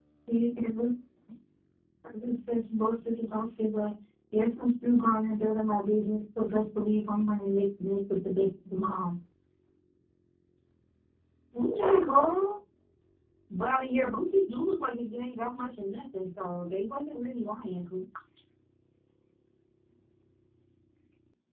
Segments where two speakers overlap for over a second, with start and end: none

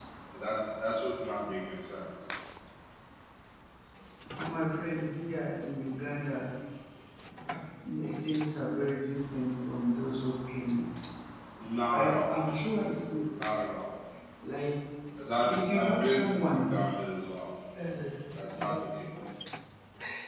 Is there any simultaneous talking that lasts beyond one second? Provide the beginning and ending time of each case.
15.4-16.7

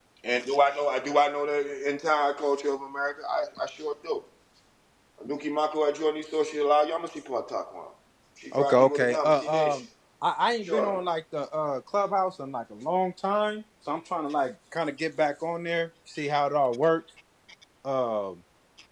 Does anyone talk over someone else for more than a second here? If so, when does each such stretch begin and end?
8.6-9.8

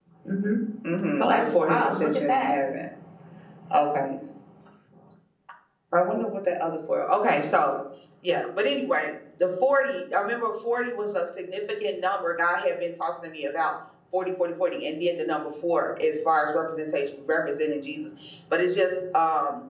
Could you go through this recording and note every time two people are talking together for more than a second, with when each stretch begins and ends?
1.2-2.6

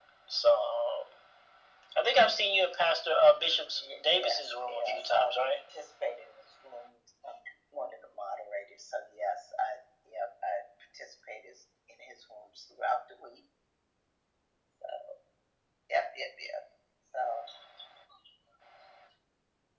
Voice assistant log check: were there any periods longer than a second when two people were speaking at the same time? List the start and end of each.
3.8-5.3

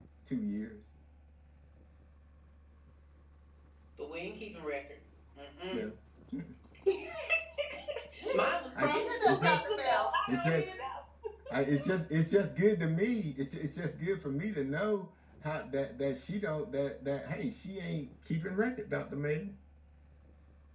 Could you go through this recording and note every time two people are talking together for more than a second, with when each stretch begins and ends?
8.8-10.7

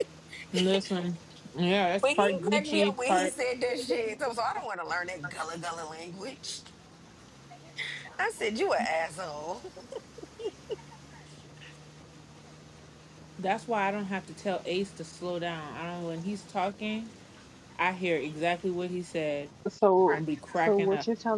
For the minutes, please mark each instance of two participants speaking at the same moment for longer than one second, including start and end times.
2.0-3.3

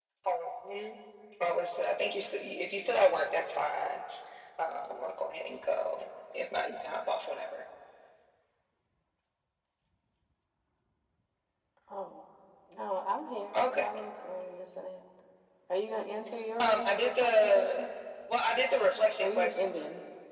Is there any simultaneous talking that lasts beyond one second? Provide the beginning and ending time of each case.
16.6-17.9

